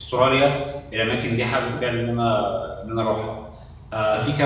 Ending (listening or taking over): listening